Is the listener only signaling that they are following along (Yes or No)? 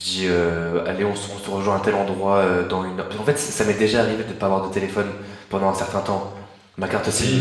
No